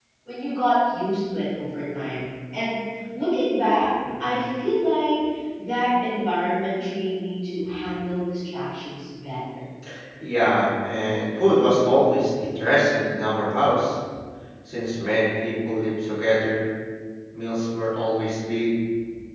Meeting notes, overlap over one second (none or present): none